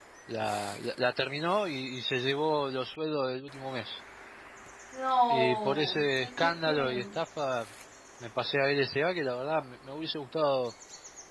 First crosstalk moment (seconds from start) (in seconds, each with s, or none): 5.3 s